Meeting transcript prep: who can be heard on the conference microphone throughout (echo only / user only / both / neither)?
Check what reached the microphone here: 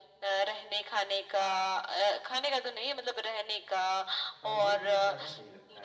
both